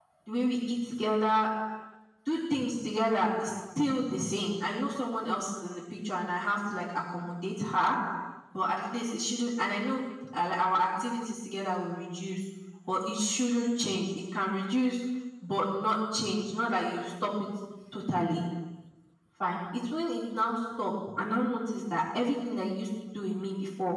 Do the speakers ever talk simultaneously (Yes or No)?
No